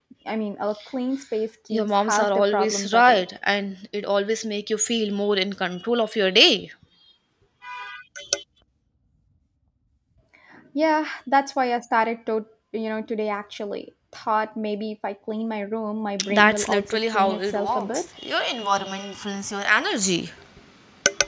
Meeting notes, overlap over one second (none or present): present